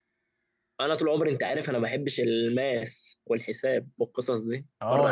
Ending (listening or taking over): taking over